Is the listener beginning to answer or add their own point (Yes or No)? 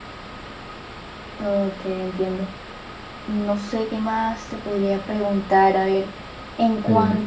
No